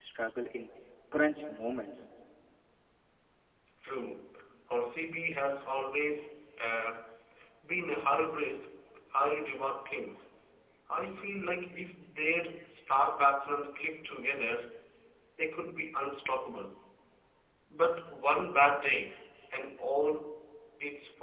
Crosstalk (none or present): none